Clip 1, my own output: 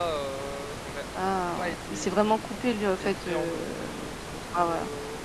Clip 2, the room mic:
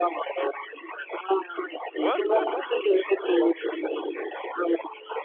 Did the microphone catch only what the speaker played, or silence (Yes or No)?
No